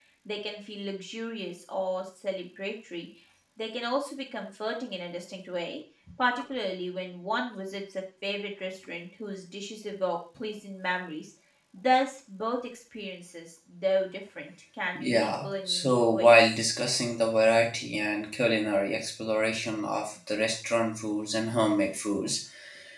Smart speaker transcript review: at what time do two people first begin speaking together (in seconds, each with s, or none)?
14.9 s